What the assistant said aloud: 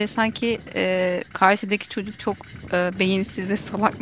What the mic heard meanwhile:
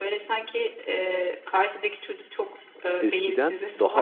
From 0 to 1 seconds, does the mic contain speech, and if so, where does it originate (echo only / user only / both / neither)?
echo only